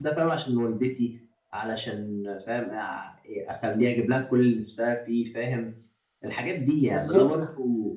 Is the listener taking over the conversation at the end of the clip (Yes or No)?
No